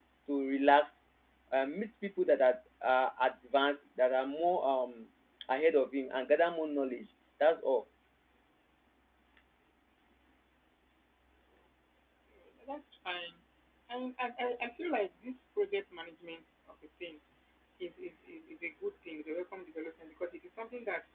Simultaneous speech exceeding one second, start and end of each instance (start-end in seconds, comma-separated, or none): none